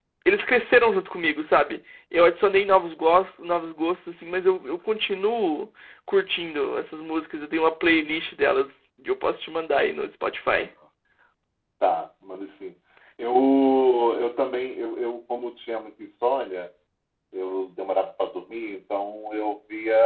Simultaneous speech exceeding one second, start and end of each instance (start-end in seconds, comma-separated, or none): none